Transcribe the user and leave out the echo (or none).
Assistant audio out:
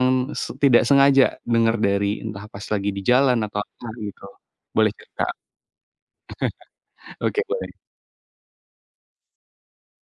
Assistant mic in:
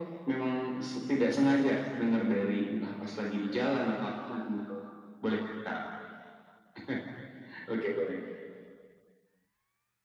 none